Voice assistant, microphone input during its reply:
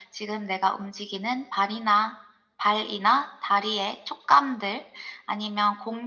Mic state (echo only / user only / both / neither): echo only